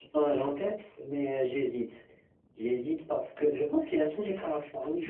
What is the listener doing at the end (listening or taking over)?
taking over